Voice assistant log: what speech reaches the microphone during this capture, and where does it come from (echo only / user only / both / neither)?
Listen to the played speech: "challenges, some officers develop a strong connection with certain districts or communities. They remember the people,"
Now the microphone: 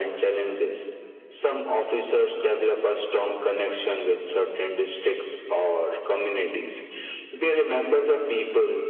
echo only